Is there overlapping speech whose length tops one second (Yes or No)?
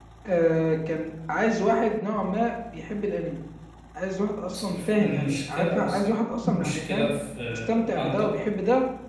Yes